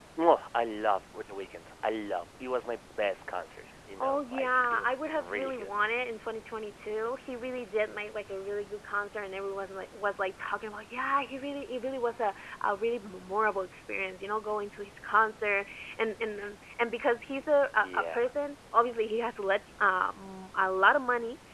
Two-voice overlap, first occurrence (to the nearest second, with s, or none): 4 s